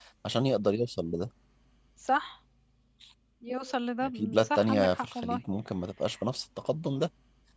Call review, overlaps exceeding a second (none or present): present